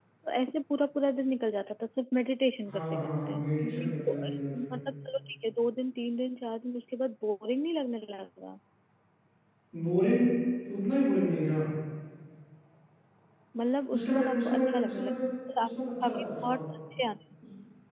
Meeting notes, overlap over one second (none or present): present